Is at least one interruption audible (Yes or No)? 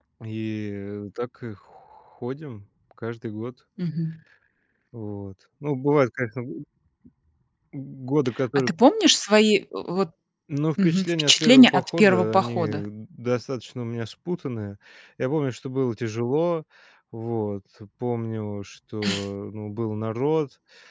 Yes